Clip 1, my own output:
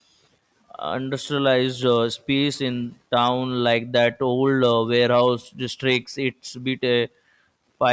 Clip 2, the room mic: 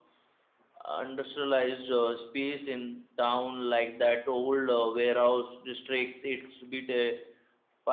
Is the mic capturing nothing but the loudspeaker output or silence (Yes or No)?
Yes